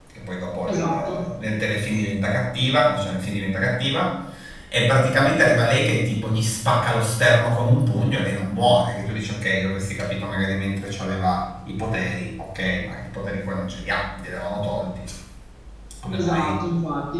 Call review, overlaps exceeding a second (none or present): none